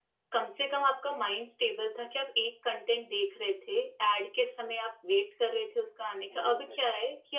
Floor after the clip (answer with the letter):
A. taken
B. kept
B